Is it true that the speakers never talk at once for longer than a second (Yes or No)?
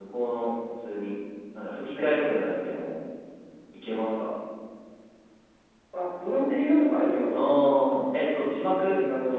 Yes